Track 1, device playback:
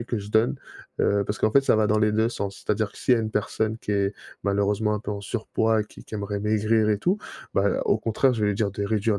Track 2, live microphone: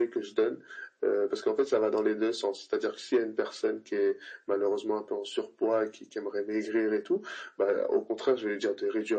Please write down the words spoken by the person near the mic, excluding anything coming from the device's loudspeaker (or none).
none